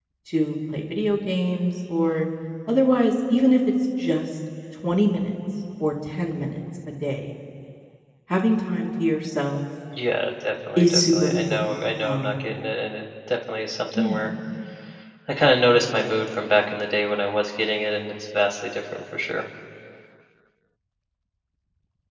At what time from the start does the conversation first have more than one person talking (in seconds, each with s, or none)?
10.8 s